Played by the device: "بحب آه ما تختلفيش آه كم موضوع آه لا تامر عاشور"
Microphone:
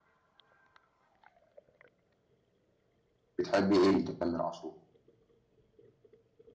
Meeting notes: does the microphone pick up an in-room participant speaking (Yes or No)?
Yes